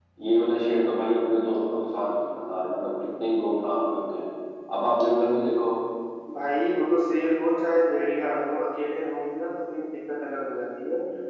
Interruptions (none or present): none